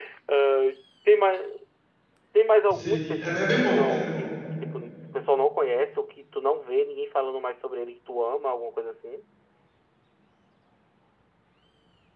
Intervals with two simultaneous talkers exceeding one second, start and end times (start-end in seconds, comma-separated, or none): 2.8-4.2